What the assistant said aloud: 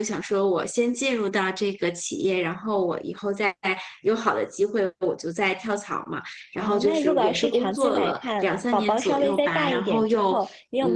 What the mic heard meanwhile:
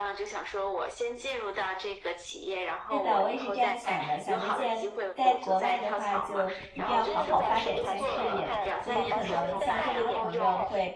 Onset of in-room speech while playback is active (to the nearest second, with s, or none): 3 s